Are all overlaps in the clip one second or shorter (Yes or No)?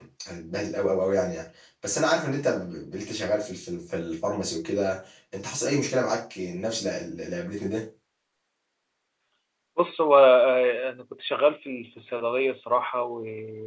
Yes